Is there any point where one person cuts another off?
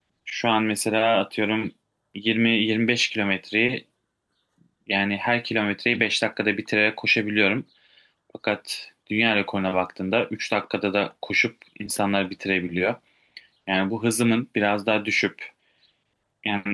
No

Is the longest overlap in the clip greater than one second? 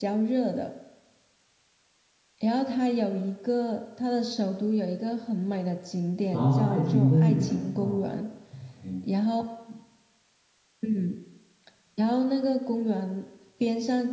Yes, from 6.3 s

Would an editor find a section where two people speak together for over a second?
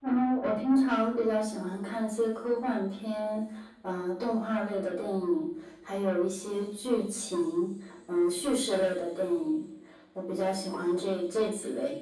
No

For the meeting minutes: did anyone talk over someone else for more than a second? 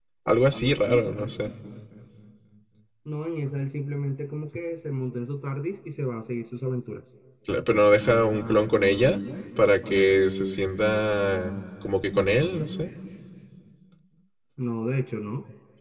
No

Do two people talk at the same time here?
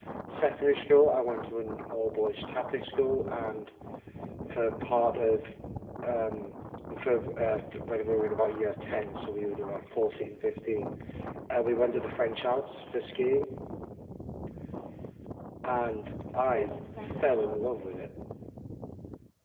Yes, from 16.5 s

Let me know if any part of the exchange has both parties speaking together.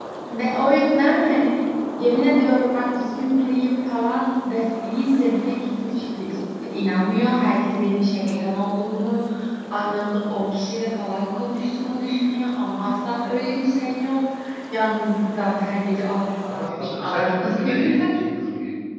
Yes, from 16.4 s

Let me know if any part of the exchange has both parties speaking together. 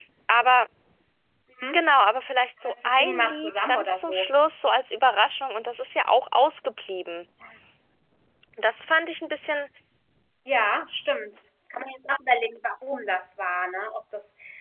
Yes, from 2.6 s

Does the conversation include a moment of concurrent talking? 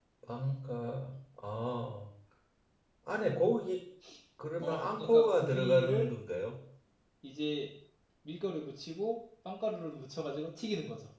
Yes, from 4.6 s

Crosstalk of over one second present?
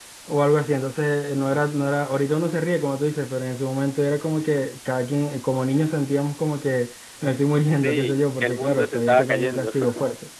Yes, from 7.8 s

